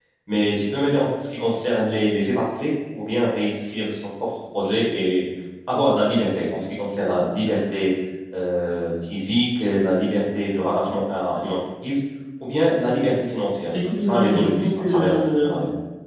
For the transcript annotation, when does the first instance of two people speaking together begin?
13.7 s

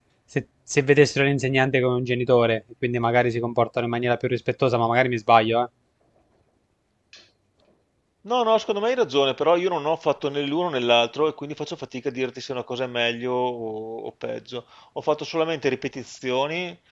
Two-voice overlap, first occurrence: none

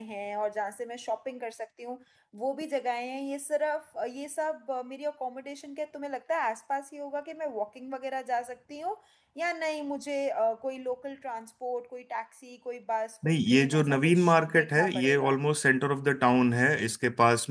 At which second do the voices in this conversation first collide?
13.2 s

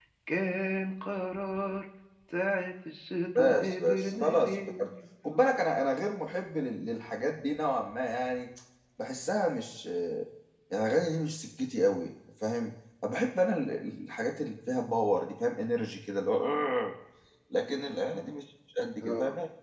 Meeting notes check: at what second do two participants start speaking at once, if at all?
3.4 s

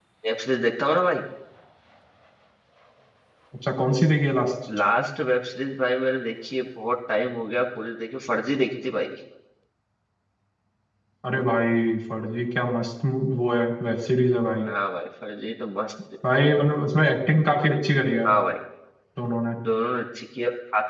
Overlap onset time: none

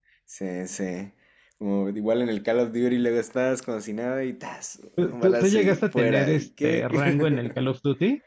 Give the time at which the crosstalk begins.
5.0 s

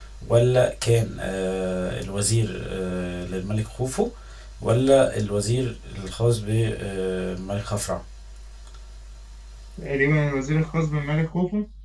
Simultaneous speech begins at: none

